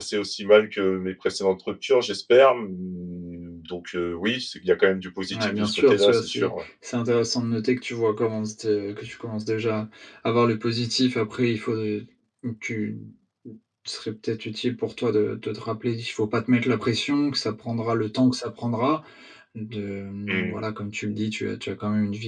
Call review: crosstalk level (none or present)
present